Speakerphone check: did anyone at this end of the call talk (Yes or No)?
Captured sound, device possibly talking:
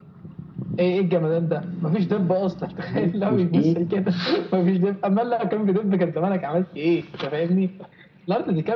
Yes